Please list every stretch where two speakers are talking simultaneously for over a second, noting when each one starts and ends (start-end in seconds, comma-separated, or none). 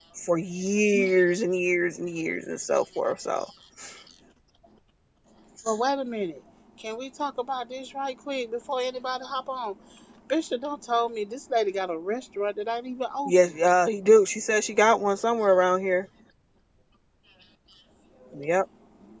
none